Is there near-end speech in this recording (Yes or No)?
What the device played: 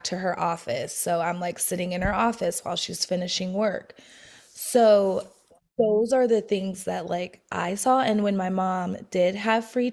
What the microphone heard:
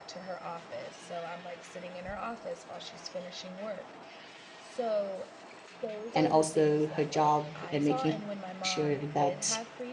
Yes